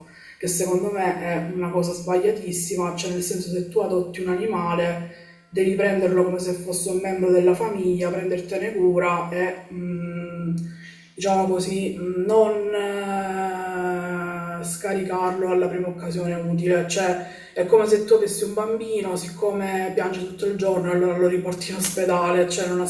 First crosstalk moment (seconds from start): none

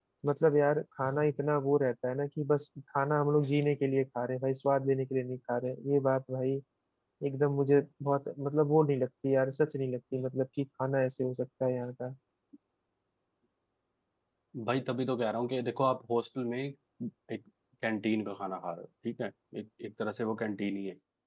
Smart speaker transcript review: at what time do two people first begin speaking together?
none

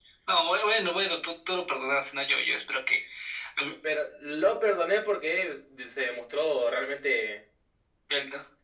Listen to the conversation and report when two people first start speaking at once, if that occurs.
none

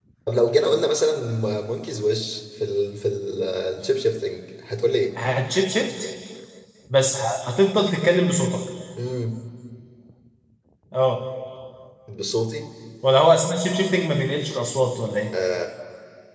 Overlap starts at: none

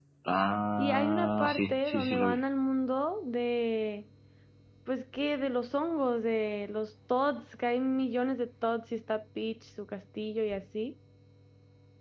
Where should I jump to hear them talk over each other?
1 s

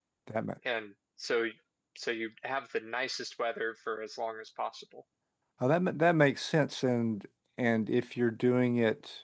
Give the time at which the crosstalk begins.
none

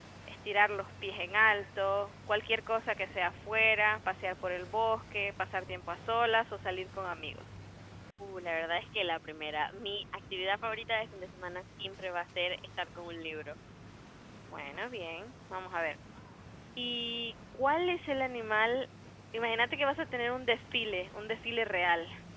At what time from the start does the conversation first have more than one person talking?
none

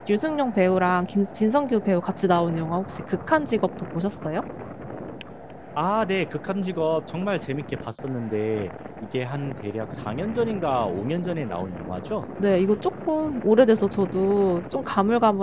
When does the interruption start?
none

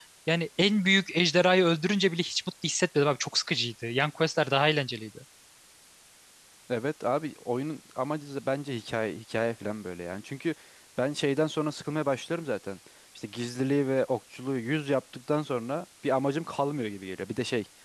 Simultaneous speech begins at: none

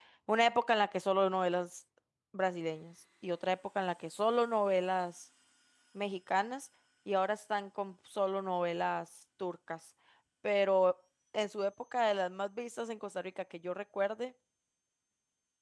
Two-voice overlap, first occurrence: none

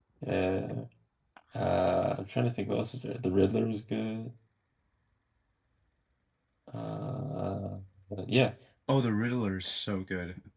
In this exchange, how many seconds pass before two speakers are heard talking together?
none

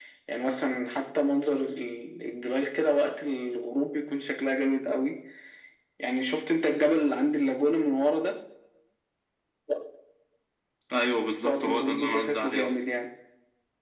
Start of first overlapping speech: 11 s

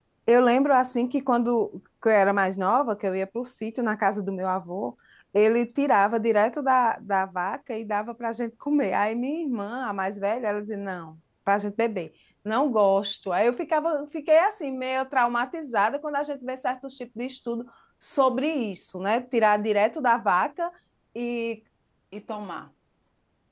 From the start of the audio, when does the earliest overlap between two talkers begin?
none

